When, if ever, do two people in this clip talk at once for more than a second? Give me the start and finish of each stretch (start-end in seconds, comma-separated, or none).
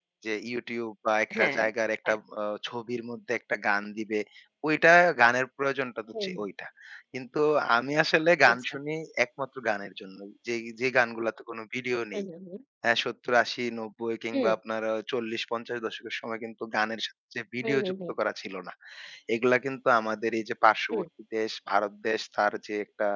none